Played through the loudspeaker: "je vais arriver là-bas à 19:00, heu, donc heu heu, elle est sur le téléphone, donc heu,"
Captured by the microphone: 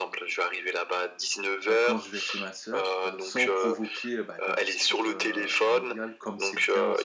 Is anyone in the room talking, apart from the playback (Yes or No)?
Yes